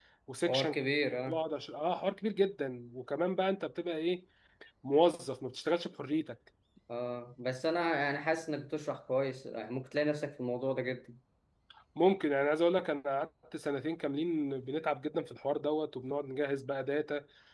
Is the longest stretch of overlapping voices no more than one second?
Yes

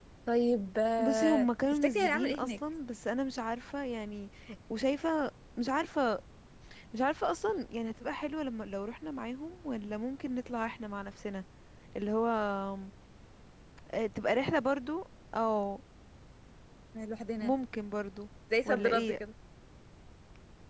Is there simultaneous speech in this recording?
Yes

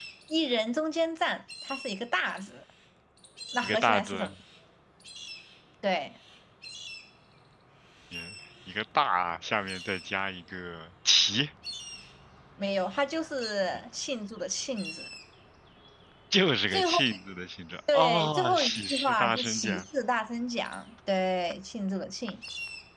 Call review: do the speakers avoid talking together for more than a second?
No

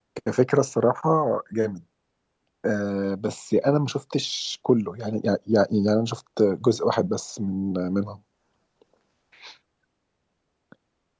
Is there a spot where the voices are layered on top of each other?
No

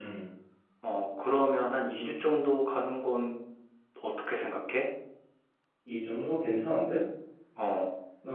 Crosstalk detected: No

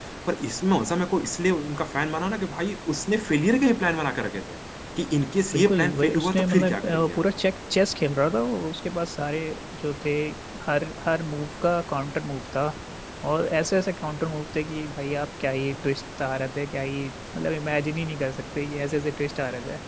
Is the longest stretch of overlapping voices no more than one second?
No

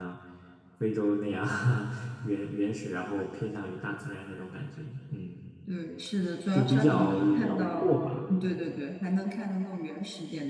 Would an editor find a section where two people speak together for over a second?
Yes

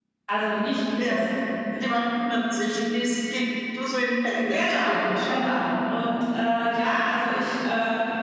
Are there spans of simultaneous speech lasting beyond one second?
Yes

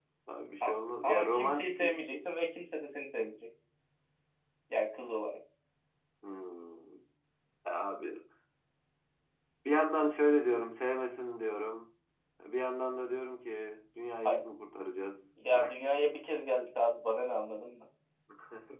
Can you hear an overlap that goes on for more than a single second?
Yes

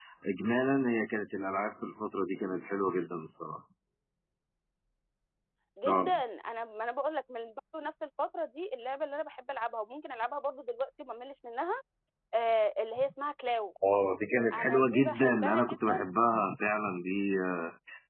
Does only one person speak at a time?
No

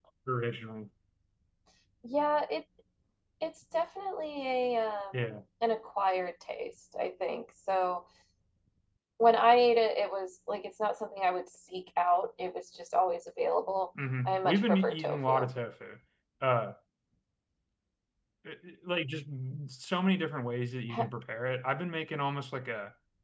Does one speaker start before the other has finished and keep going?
Yes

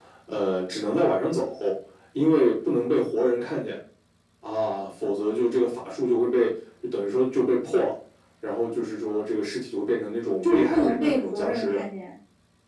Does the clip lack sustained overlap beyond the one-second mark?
No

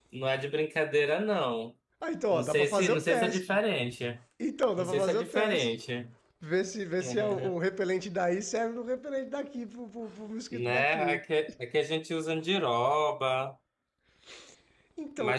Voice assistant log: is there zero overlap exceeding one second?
No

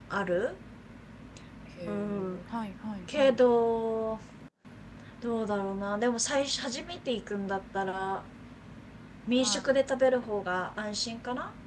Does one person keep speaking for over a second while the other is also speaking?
No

